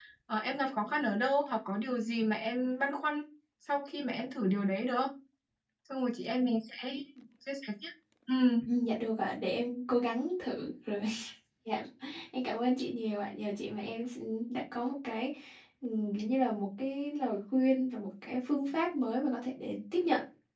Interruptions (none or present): none